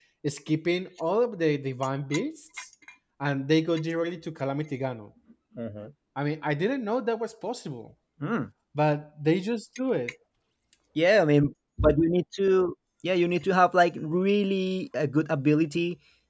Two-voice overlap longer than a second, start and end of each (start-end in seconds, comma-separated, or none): none